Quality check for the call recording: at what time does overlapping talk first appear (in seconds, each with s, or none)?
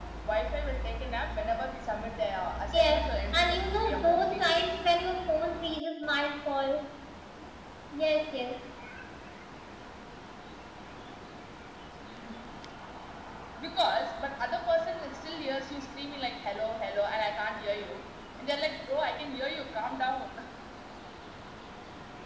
2.7 s